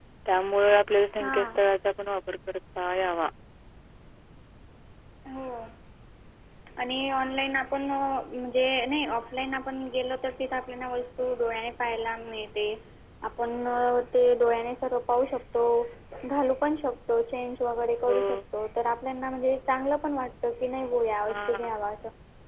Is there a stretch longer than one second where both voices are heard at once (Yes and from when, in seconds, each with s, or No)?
No